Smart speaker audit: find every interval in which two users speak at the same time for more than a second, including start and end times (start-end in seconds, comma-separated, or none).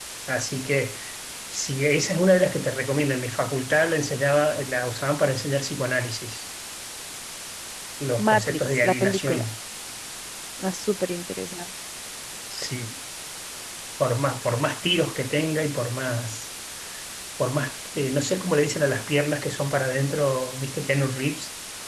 8.2-9.4